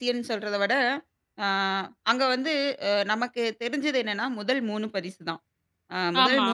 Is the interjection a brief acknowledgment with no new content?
Yes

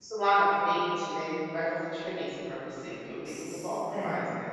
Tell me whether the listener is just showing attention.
No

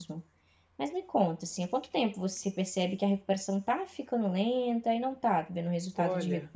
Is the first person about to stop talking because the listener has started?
Yes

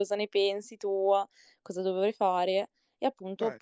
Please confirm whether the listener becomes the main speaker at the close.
No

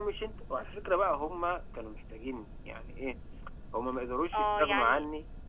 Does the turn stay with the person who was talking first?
No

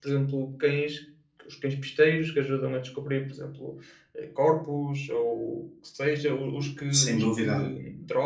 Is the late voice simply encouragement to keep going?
Yes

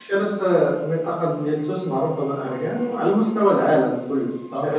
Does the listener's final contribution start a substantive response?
Yes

